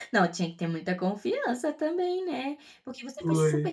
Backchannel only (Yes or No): Yes